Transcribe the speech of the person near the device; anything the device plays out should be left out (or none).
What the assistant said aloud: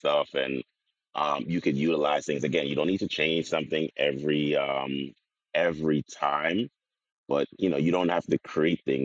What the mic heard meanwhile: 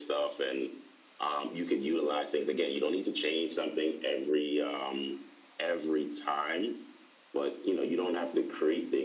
none